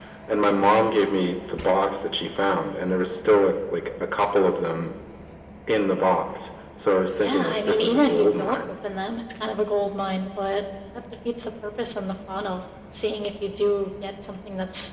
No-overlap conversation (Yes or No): No